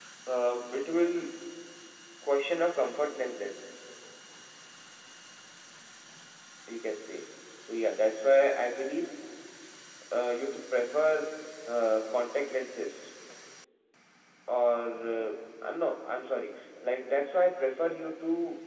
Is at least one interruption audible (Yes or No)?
No